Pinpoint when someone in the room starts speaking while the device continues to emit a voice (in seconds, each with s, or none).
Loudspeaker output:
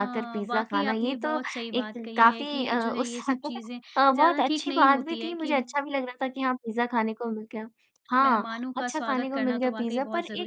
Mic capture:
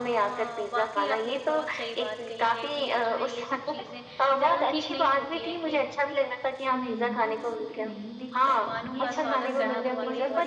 6.7 s